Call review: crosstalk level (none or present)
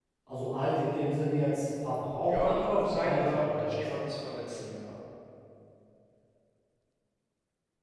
present